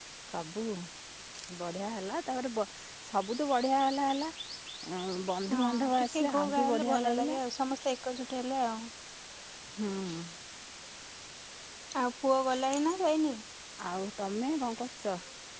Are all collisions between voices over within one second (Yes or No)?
No